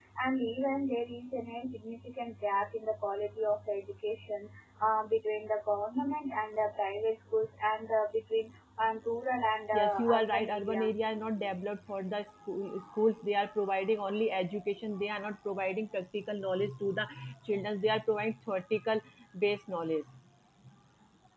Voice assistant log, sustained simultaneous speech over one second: present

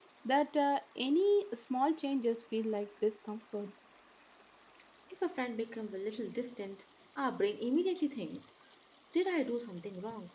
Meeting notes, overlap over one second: none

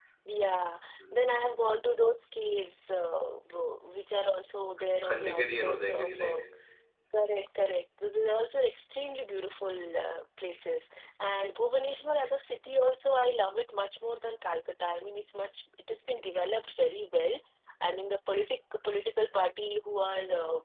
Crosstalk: present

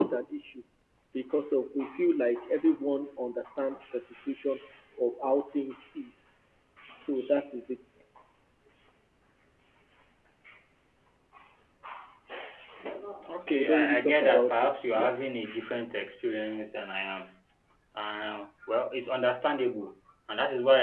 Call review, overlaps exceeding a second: present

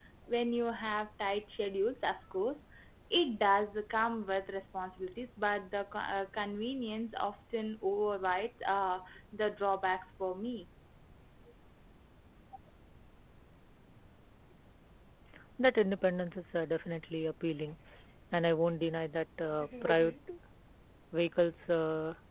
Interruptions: none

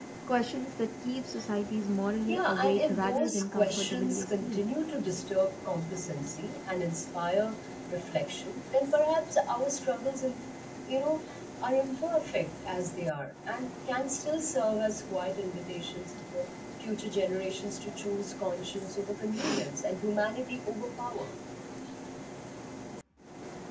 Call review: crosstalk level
present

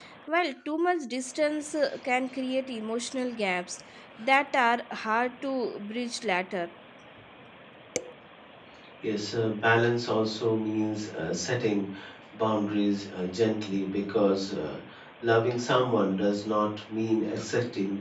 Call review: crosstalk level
none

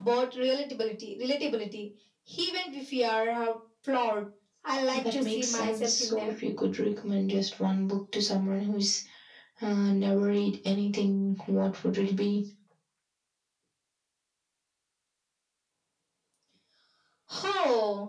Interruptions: present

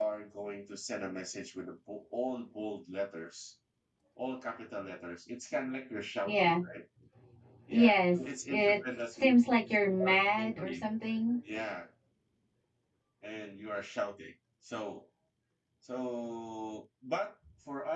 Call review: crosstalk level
present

